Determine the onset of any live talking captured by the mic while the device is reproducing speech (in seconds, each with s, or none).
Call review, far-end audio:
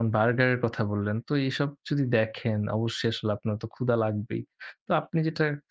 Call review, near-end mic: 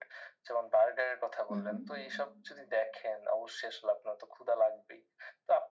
1.5 s